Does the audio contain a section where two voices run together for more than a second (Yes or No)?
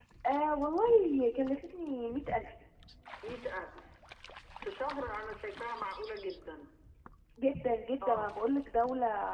No